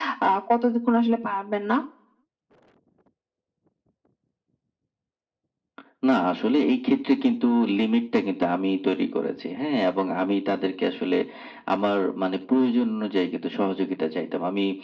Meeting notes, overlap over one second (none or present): none